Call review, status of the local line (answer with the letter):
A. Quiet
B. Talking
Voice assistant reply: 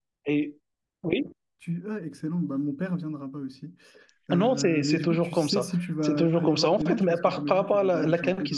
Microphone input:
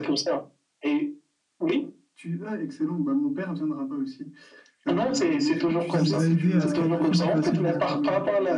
B